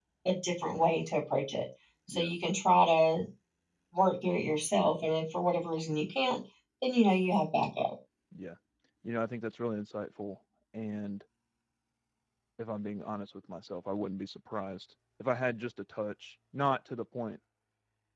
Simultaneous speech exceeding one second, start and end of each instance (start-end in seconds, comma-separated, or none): none